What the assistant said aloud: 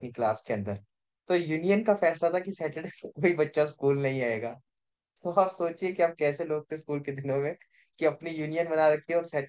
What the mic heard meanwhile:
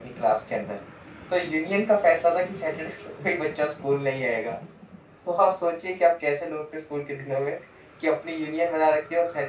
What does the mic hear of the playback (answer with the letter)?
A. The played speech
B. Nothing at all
A